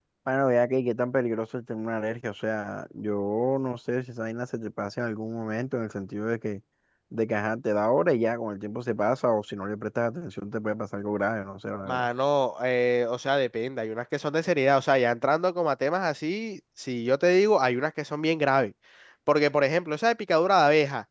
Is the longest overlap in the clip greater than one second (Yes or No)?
No